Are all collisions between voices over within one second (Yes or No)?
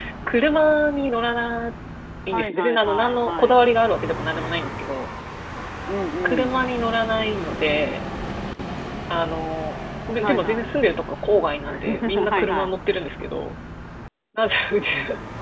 No